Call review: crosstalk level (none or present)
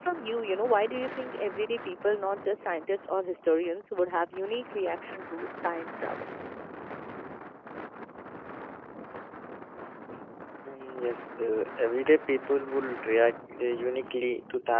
none